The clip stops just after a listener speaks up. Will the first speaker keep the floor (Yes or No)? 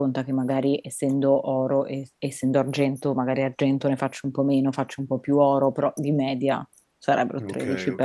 No